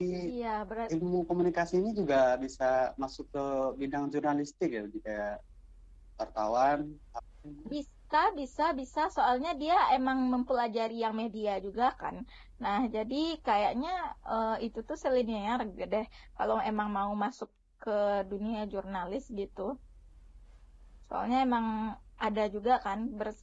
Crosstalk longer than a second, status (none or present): none